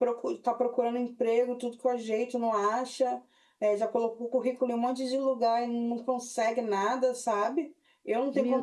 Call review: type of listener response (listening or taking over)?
listening